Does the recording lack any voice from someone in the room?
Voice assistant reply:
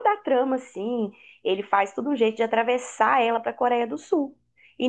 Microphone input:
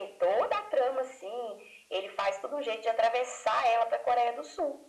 Yes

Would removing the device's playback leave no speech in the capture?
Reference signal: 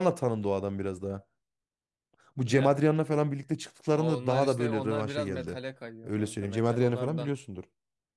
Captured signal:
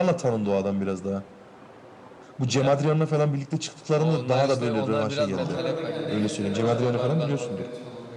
No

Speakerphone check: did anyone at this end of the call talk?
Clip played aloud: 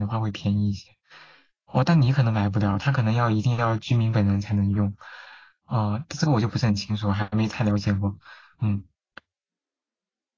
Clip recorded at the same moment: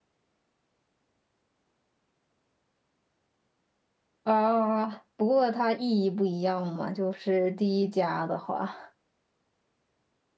Yes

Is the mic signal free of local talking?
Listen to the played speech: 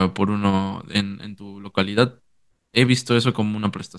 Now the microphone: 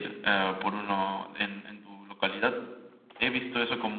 Yes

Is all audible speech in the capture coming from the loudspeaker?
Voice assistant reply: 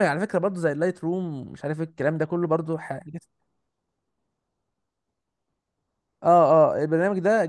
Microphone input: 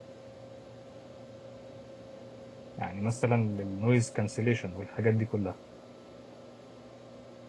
No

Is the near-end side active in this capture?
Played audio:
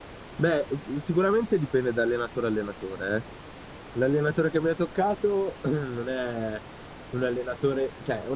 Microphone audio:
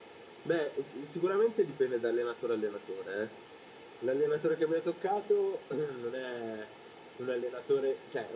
No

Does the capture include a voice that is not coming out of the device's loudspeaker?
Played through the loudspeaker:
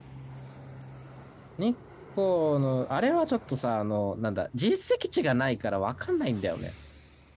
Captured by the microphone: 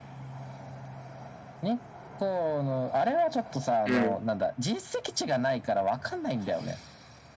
Yes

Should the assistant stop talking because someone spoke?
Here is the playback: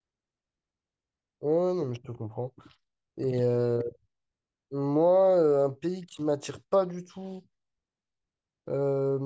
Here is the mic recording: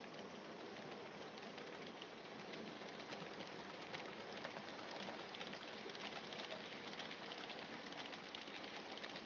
No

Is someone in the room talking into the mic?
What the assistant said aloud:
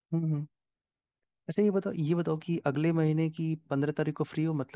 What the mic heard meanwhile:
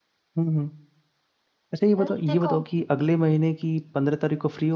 Yes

